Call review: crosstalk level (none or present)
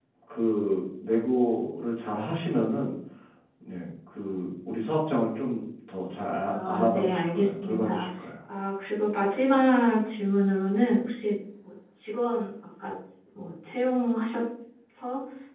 present